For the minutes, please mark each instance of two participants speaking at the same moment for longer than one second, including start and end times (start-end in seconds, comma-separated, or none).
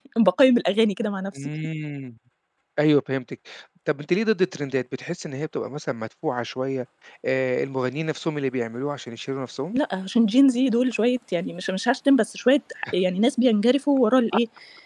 none